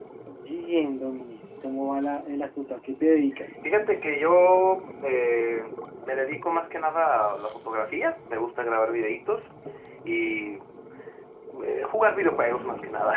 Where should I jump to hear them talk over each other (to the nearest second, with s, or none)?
none